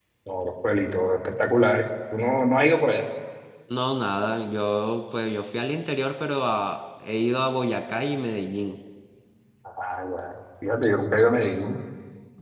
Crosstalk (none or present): none